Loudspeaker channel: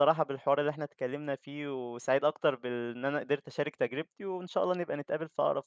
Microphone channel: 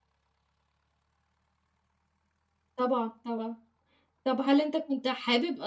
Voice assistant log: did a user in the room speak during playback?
Yes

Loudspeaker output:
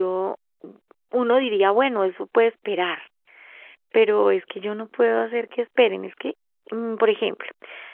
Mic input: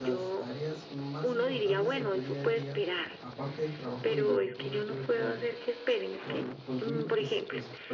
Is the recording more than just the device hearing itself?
Yes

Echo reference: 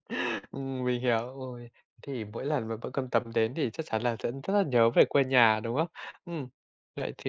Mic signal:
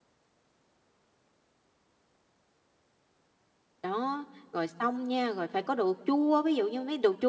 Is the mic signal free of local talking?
No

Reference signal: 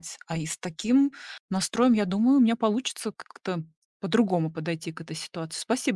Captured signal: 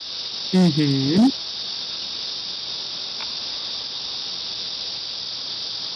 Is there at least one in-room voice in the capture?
Yes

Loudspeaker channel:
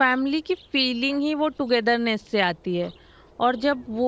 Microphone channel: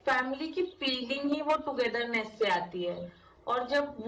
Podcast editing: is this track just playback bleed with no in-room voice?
Yes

